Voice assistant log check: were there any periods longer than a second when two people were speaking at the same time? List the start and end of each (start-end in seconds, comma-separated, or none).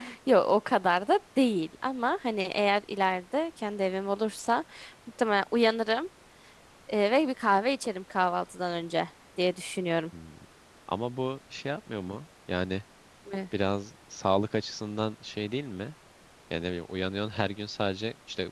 none